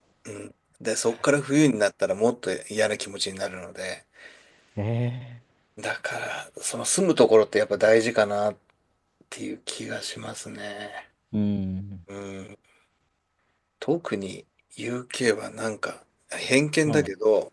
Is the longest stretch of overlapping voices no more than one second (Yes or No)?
Yes